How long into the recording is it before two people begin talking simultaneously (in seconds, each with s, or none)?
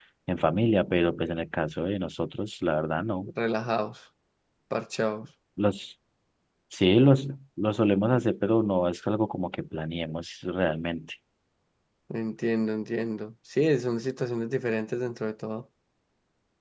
none